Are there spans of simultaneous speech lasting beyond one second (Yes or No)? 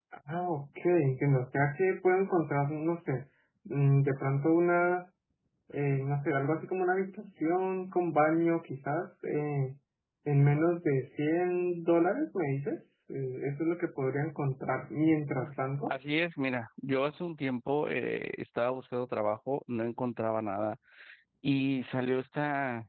No